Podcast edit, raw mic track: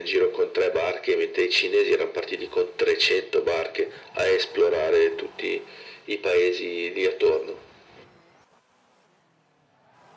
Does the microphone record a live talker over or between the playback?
No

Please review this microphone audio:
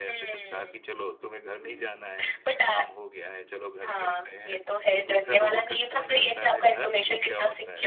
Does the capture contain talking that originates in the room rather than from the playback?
Yes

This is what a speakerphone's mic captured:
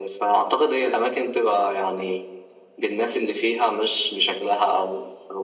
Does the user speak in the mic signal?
No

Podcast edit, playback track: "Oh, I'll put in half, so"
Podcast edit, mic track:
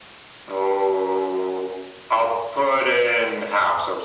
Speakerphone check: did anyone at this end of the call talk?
No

